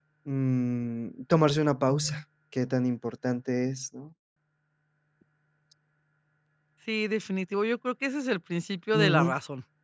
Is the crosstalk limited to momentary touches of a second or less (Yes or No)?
Yes